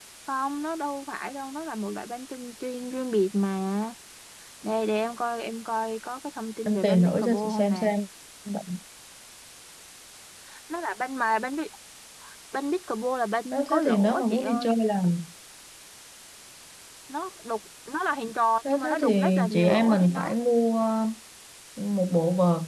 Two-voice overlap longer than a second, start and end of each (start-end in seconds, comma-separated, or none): 6.7-7.9, 13.5-14.8, 18.6-20.3